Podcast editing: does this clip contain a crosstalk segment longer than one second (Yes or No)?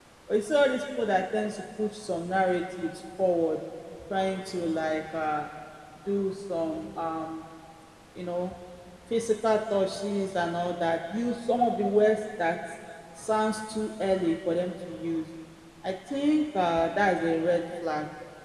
No